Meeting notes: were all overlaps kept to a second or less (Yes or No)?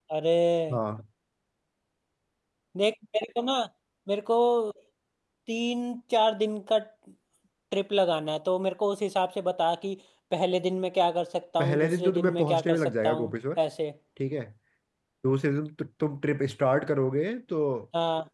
No